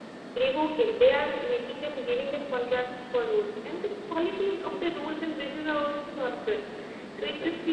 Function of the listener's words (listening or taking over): listening